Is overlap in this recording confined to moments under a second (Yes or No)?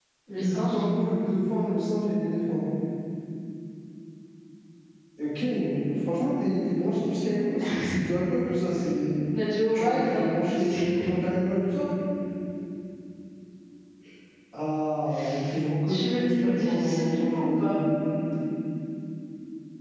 No